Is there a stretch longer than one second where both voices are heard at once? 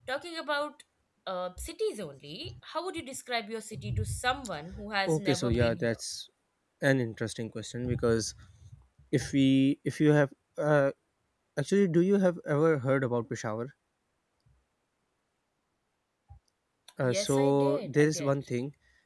Yes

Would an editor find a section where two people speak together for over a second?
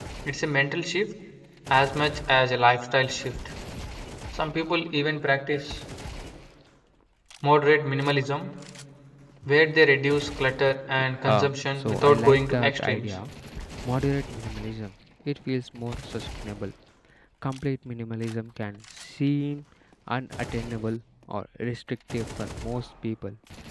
Yes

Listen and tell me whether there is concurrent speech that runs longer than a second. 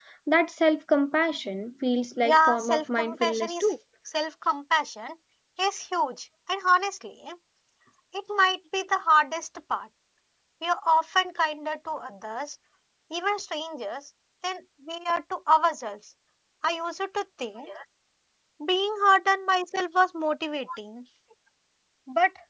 Yes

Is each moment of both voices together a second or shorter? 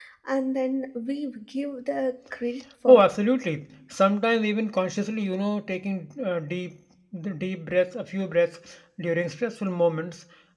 Yes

